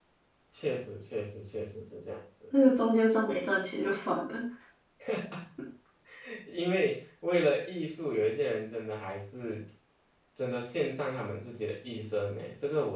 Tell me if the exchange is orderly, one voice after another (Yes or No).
Yes